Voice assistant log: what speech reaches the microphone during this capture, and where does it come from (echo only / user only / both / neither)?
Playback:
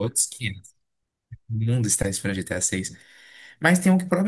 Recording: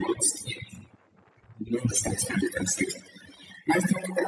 echo only